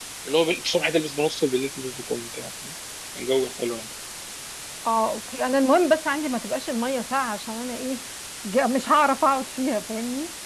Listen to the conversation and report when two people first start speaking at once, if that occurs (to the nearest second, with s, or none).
none